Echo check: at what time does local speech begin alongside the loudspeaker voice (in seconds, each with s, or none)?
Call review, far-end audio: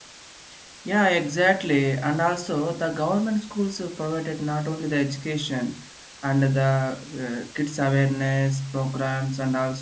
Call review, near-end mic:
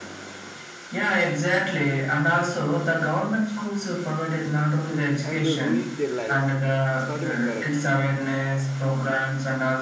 5.2 s